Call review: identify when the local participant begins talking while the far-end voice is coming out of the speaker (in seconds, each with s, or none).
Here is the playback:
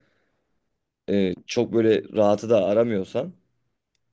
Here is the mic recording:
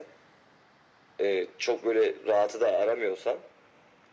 none